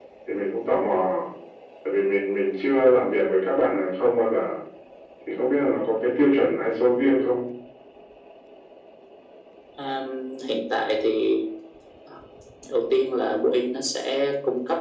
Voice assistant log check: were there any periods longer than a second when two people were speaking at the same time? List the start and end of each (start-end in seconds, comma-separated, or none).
none